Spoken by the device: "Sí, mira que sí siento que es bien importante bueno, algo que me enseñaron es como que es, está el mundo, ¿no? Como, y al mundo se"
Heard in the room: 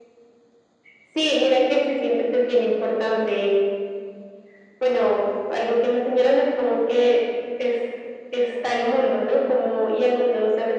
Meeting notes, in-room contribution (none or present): none